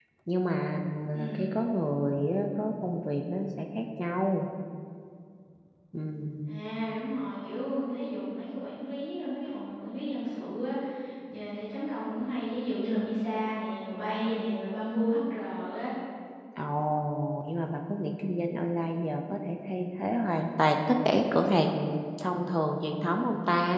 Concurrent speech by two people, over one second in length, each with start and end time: none

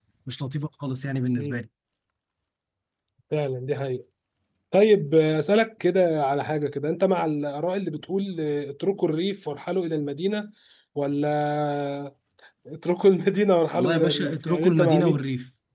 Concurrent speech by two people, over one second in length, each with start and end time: 13.8-15.2

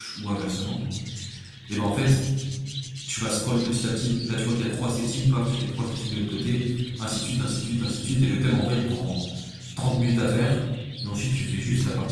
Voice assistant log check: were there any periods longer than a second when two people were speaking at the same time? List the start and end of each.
none

